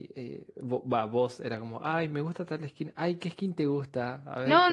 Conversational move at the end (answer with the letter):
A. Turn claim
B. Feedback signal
A